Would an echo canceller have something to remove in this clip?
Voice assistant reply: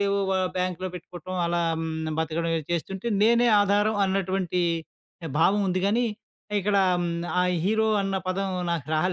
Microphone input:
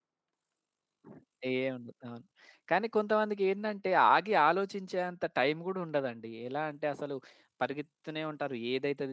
No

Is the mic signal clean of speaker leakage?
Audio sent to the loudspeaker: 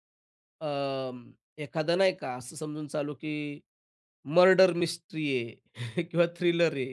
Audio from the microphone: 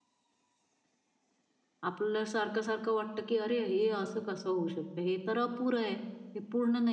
Yes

